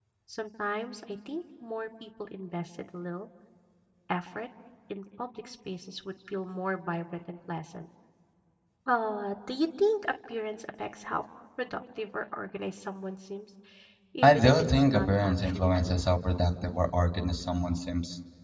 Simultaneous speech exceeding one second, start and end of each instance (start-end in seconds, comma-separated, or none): 14.2-16.1